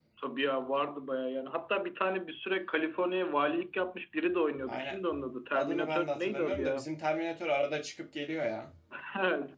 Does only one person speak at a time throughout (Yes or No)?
No